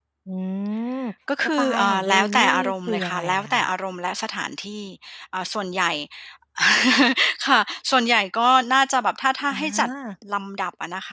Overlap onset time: 1.6 s

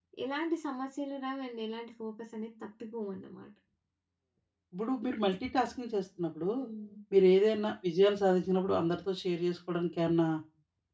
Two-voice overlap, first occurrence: none

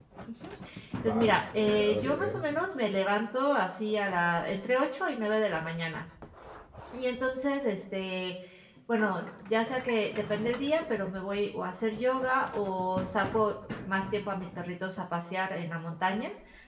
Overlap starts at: 1.0 s

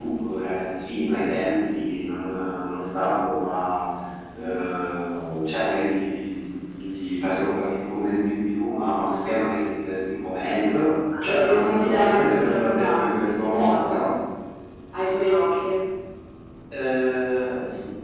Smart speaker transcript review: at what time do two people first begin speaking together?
11.1 s

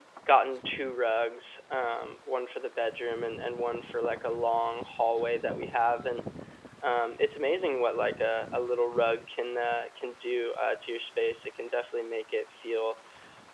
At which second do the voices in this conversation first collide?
none

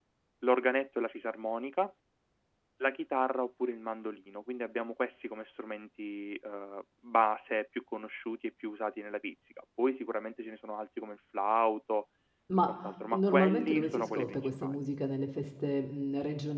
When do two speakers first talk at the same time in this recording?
13.1 s

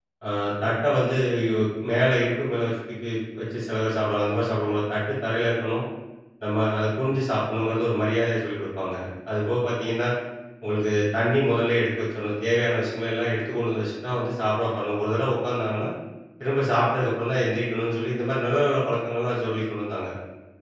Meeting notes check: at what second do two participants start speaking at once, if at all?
none

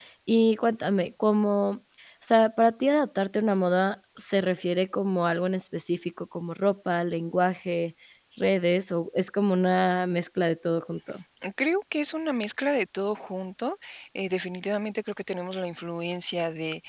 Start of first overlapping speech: none

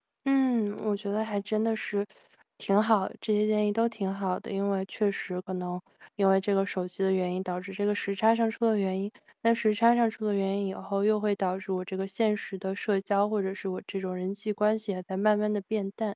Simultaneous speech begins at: none

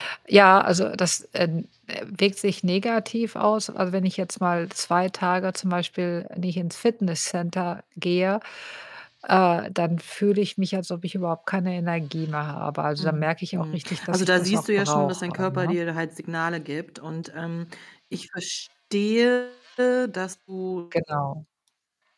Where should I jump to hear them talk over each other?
13.0 s

